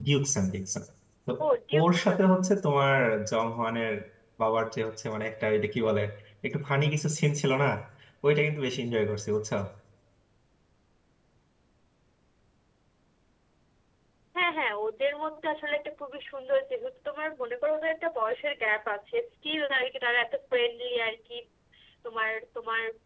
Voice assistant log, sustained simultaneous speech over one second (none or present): none